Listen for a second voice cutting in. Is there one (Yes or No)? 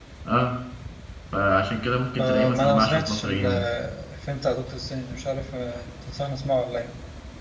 Yes